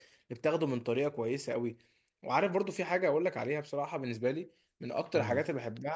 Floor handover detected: No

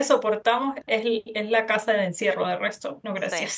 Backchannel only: No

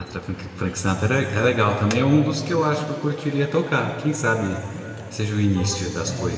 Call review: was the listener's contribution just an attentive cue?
No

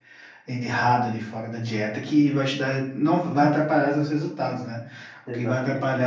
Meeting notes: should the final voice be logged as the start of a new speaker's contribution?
No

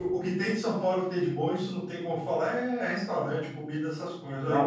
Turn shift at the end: Yes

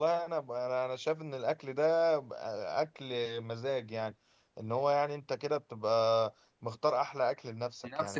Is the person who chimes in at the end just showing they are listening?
No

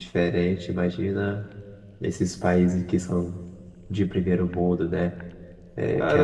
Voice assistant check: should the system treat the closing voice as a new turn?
Yes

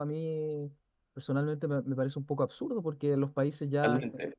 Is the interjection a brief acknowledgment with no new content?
Yes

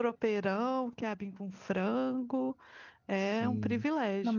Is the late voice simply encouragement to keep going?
No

